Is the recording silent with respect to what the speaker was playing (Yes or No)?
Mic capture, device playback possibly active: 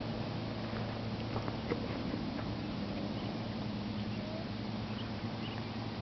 Yes